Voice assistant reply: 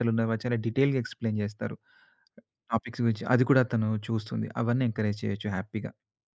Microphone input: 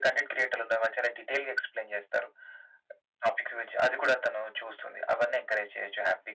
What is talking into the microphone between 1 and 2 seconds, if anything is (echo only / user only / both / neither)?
echo only